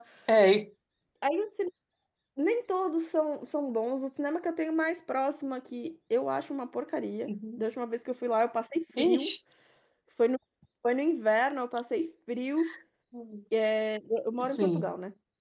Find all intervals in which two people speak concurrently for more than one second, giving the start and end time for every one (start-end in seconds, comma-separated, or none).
none